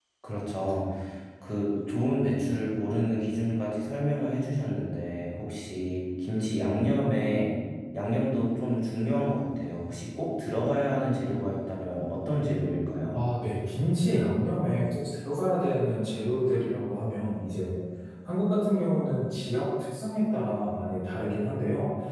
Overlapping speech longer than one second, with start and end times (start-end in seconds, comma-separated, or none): none